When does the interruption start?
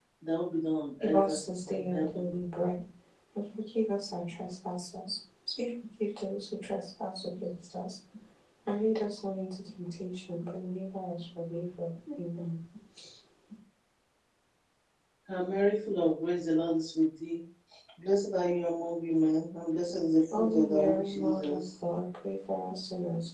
1 s

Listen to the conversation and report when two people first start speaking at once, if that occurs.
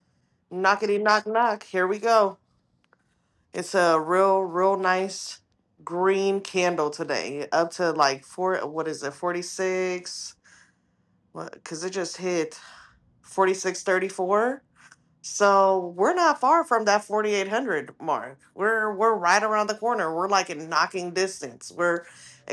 none

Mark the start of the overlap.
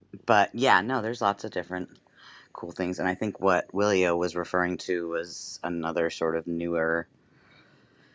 none

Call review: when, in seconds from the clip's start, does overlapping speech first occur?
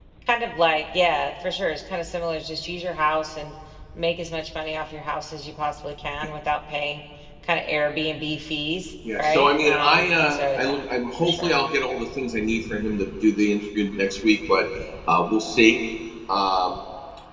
9 s

